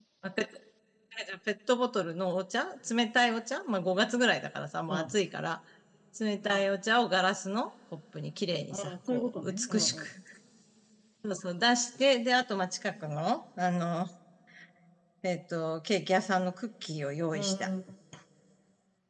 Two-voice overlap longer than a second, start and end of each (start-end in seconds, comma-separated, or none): 8.7-10.0